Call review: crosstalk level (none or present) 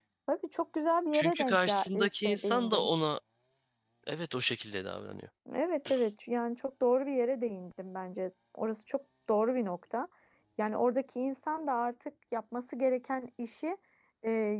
present